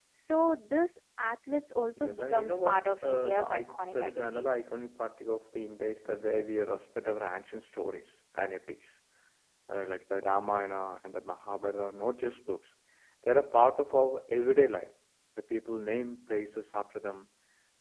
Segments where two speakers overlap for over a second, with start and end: 2.0-4.5

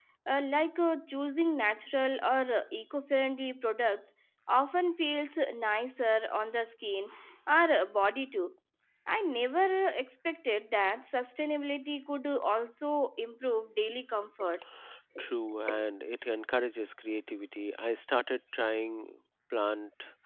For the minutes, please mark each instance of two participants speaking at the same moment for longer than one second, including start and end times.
none

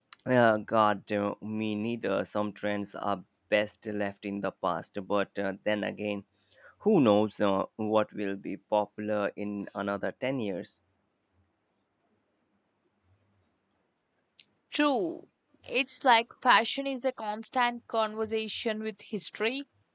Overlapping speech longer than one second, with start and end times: none

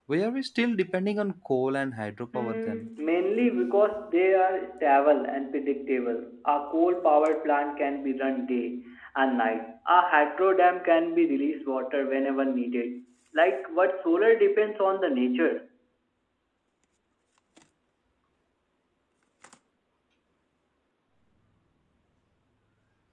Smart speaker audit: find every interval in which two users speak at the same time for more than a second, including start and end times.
none

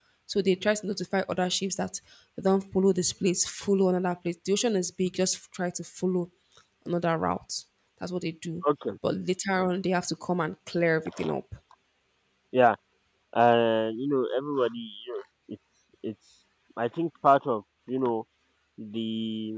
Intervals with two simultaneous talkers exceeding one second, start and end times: none

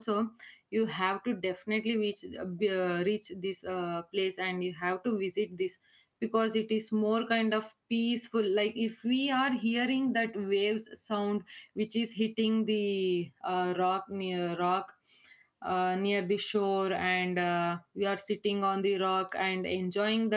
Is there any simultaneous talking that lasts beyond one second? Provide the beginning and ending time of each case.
none

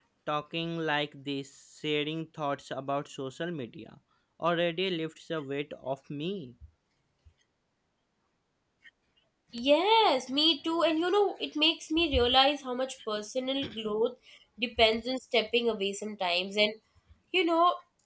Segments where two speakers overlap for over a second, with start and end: none

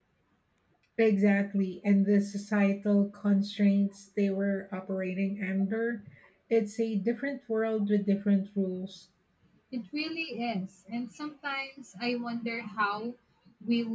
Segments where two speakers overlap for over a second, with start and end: none

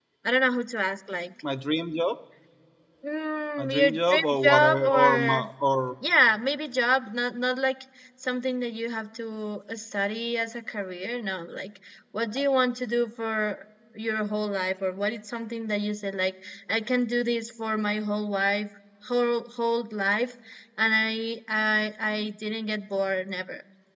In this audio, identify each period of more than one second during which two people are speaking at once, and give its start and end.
3.6-5.4

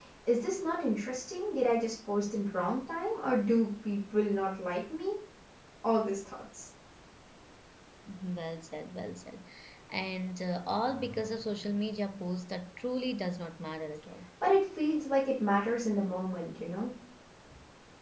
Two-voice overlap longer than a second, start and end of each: none

